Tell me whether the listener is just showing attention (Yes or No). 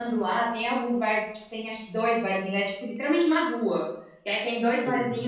Yes